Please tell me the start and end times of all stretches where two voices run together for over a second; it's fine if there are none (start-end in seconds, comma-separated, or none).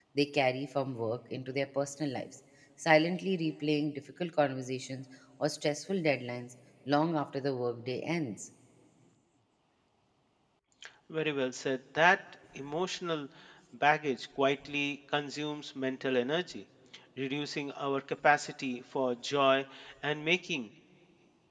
none